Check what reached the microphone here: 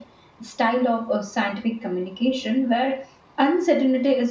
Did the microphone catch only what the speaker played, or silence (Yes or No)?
Yes